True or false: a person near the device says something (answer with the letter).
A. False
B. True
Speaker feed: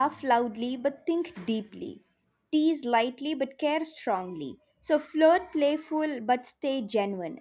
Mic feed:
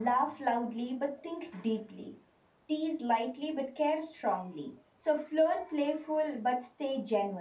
A